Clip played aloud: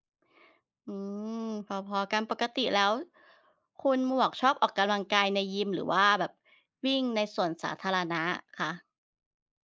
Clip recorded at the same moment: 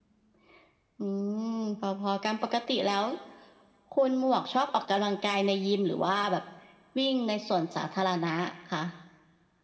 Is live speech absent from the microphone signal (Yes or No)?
Yes